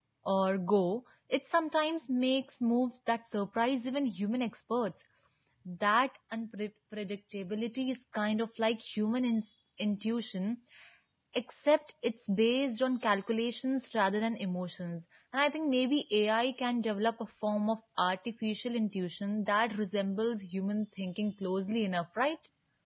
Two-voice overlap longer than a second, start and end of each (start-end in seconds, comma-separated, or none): none